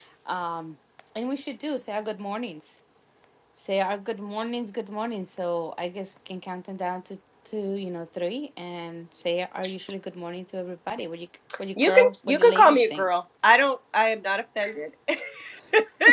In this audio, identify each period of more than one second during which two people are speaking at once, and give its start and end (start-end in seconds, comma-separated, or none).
11.8-13.0